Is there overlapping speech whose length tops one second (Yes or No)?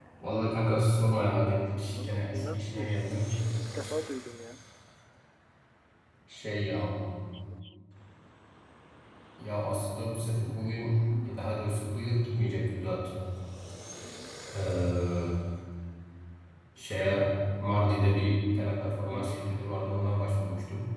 Yes